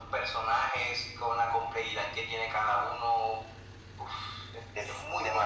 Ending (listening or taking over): taking over